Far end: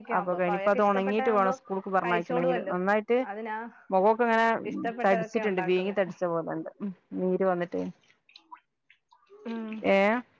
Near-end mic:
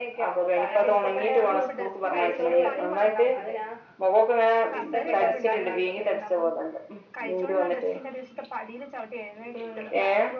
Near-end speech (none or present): present